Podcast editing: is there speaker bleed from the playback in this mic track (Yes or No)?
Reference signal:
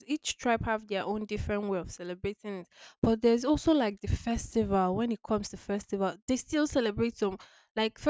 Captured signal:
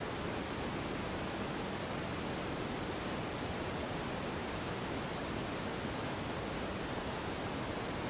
No